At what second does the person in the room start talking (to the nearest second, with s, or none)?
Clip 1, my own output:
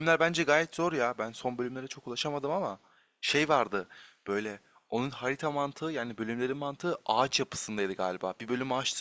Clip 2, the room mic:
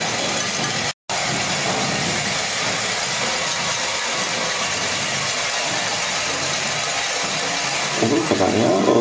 8 s